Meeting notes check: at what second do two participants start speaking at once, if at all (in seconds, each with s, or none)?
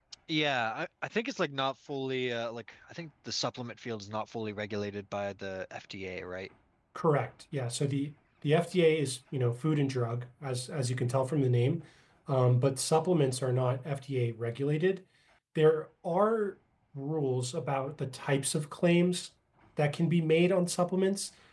none